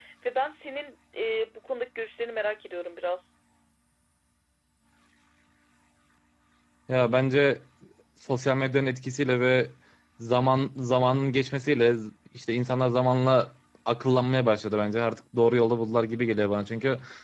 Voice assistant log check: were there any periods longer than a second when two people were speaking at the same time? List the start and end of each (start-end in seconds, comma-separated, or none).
none